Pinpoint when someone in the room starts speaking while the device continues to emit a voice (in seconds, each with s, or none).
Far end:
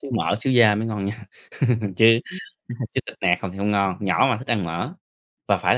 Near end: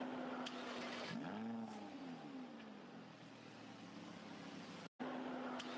none